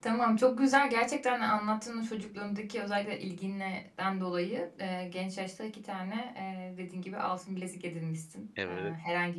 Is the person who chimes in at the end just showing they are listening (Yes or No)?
Yes